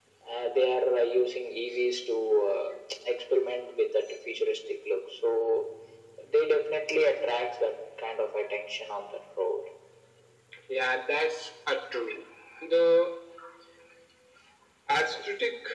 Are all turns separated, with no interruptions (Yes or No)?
Yes